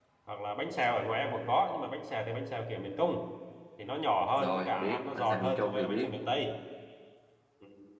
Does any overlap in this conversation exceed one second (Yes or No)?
Yes